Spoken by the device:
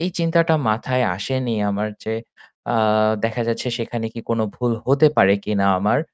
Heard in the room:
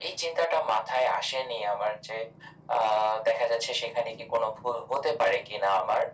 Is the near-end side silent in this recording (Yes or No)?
Yes